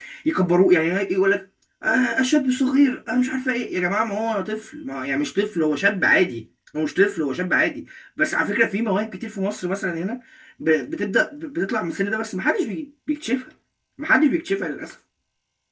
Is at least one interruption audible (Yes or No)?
No